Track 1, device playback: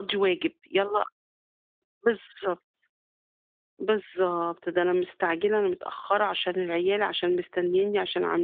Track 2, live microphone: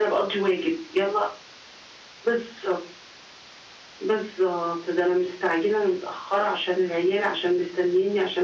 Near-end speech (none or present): none